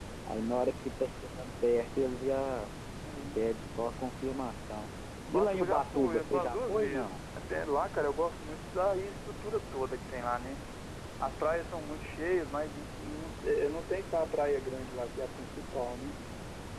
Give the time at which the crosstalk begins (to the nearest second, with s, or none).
5 s